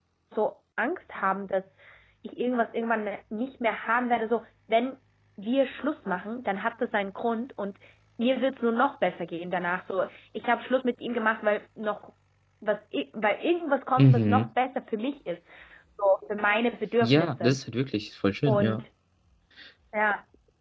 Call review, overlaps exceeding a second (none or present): none